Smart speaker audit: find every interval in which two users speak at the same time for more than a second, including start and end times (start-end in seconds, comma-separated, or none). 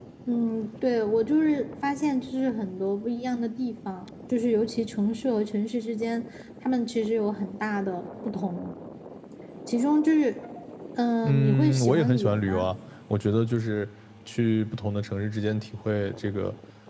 11.2-12.6